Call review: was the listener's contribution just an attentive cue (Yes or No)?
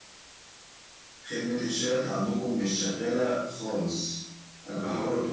Yes